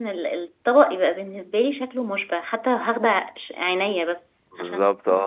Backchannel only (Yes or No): No